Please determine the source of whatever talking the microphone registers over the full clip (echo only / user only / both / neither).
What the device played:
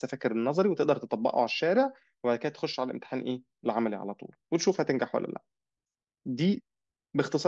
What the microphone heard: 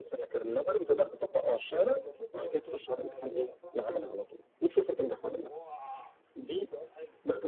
both